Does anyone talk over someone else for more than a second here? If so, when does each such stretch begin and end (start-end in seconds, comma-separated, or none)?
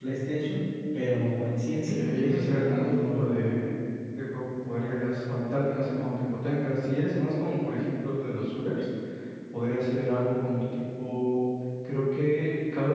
1.7-3.5